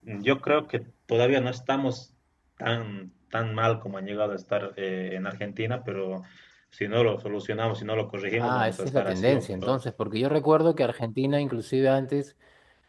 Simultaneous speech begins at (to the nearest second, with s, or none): 8 s